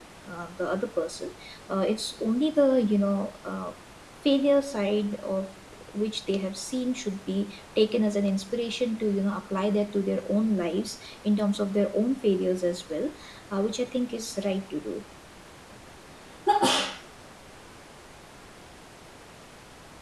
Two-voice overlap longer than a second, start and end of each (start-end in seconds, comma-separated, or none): none